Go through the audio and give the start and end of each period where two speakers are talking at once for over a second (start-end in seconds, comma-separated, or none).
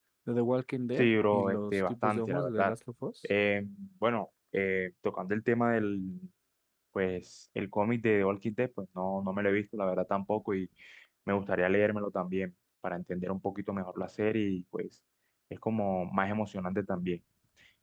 1.0-2.7